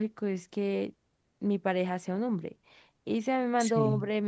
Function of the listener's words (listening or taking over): listening